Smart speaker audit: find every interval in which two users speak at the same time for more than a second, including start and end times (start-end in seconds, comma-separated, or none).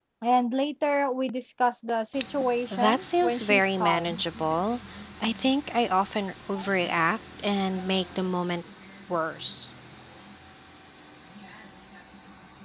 2.7-4.2